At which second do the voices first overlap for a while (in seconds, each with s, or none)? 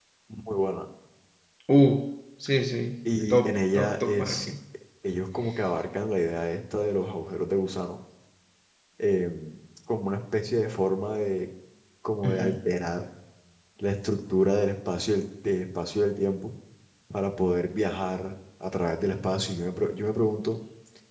3.3 s